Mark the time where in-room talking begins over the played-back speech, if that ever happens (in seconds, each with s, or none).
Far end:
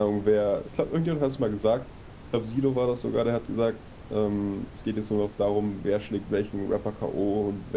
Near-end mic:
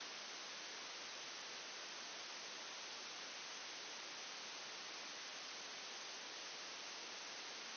none